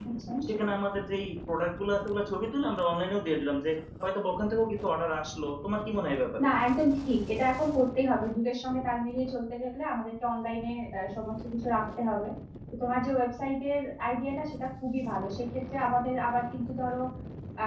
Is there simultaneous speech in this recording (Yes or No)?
No